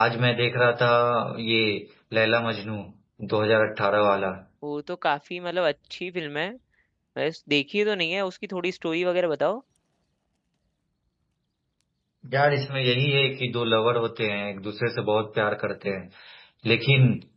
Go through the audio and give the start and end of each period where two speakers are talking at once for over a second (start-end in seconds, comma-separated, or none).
none